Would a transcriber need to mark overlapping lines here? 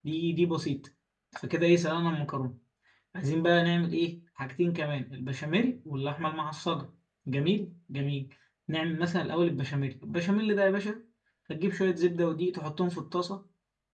No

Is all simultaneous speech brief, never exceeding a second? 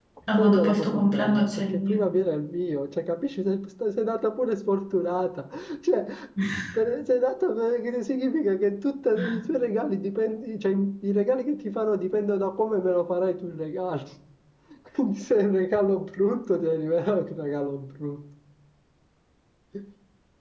No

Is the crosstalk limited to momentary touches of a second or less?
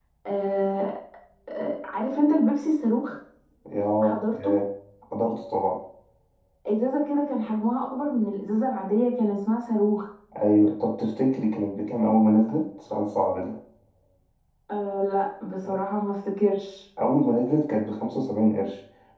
Yes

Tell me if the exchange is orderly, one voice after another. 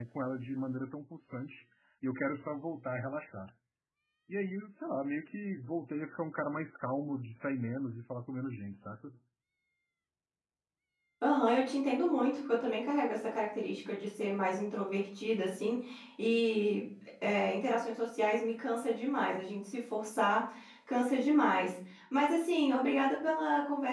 Yes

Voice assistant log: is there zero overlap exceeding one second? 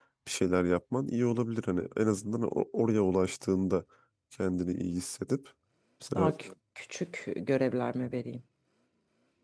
Yes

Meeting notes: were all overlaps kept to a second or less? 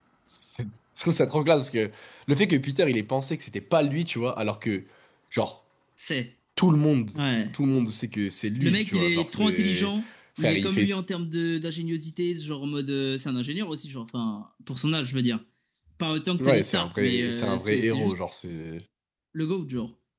No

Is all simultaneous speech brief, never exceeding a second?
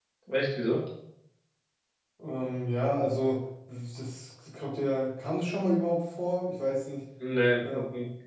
Yes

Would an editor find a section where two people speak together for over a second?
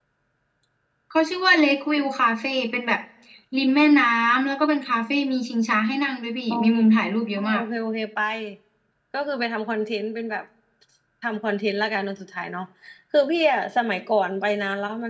No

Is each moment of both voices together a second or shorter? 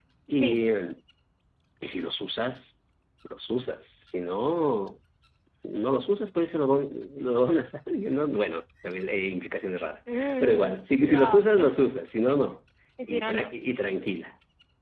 No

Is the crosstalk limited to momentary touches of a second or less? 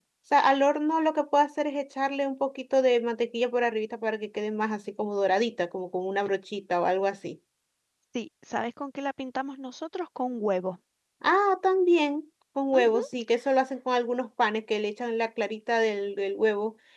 Yes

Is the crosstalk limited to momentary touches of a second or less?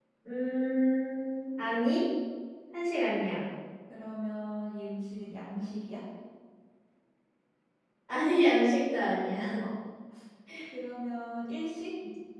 Yes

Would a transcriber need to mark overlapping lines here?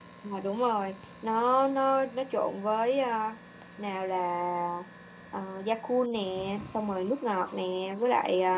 No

